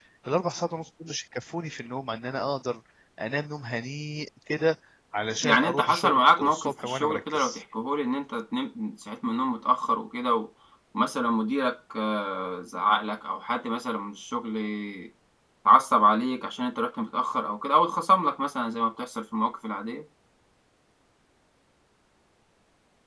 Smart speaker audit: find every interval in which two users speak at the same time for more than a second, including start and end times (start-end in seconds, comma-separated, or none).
5.4-7.6